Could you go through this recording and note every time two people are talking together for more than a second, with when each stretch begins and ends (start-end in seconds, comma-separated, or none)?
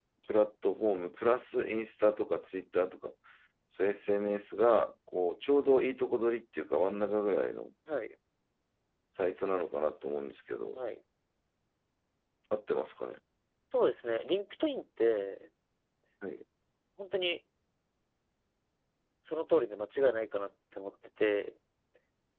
none